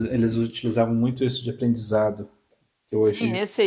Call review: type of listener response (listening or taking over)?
taking over